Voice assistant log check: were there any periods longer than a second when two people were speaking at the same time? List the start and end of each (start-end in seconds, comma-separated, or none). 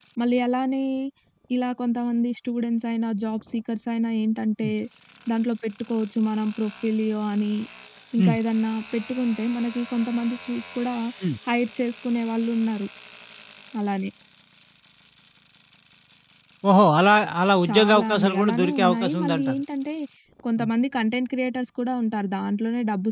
17.7-19.6